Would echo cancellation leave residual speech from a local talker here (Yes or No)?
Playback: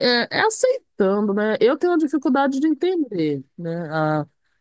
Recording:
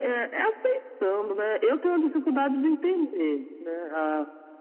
No